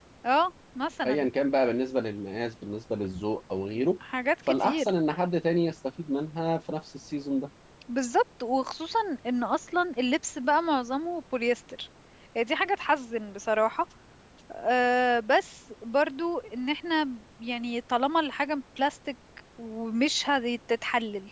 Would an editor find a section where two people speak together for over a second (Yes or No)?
No